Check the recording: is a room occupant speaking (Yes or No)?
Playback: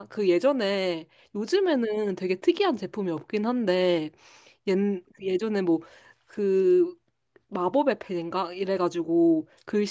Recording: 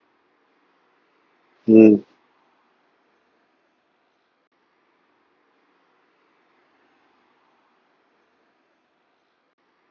Yes